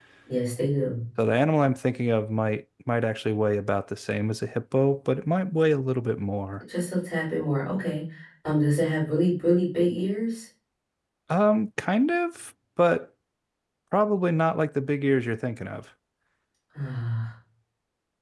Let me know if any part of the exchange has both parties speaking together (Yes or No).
No